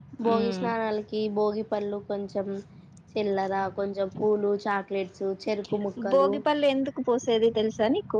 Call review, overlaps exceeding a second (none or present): none